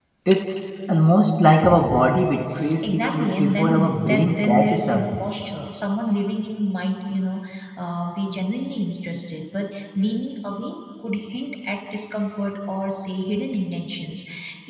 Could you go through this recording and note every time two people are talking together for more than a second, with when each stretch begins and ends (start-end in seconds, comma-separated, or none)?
2.8-5.0